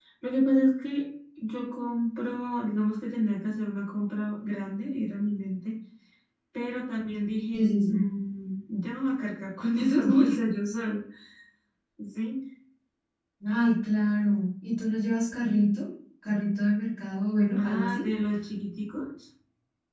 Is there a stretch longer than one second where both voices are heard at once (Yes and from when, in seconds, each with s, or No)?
No